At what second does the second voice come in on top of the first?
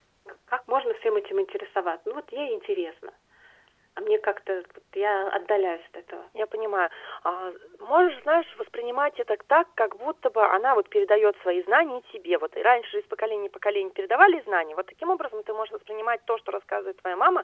none

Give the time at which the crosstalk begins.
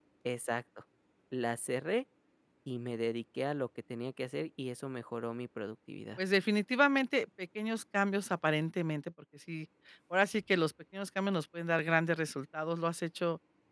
none

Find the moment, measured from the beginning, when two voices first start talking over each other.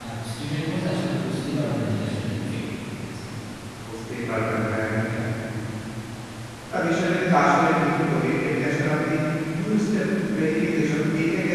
none

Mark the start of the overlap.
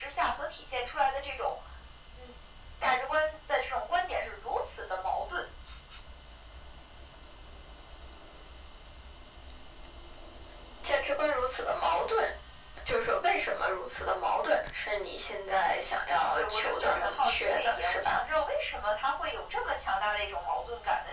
16.1 s

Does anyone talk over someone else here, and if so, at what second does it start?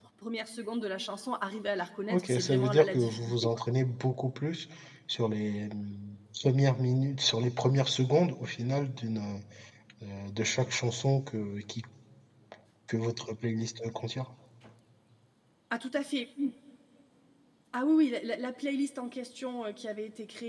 2.1 s

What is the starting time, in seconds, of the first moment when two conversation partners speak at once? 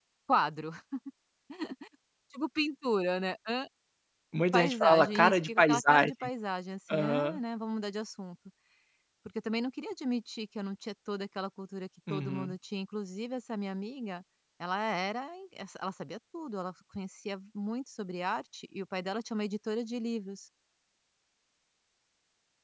4.5 s

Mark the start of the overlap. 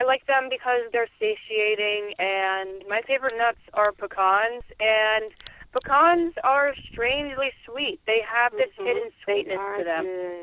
8.5 s

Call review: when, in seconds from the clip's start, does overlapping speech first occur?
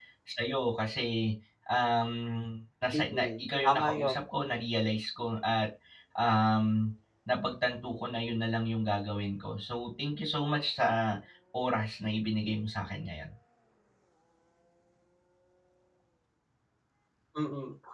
2.9 s

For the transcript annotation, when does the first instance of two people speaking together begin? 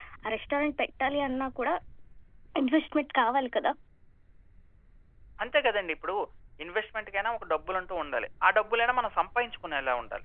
none

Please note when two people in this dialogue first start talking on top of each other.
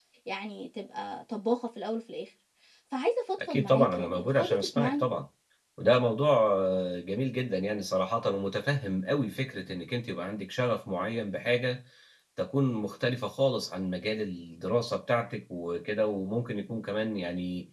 3.4 s

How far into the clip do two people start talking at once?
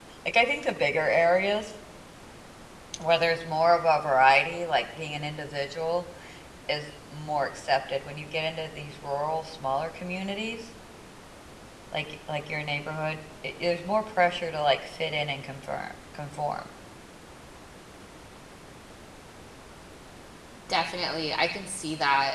none

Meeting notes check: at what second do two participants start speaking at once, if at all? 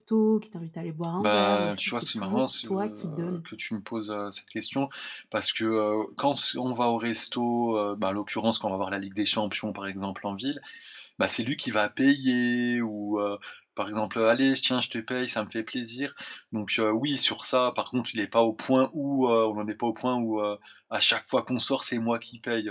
1.2 s

